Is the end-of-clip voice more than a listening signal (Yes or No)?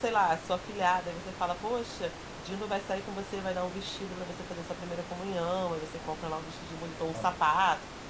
No